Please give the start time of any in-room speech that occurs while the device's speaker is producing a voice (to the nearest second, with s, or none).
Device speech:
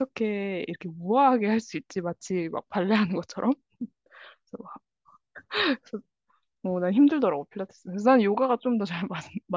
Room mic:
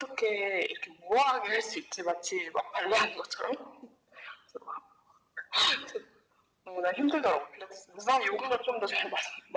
none